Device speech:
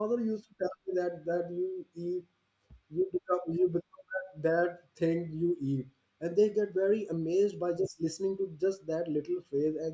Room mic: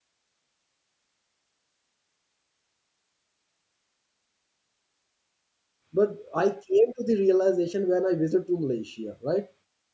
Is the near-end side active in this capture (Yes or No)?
Yes